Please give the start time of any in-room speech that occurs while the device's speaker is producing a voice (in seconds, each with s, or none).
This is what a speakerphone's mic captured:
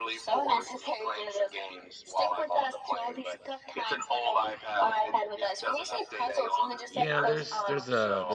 6.9 s